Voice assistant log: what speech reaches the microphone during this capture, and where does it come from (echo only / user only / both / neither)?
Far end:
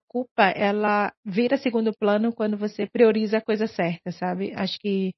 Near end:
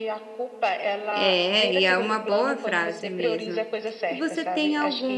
both